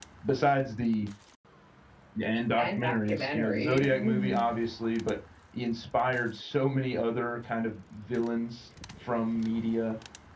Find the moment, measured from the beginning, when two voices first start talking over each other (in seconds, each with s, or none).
2.6 s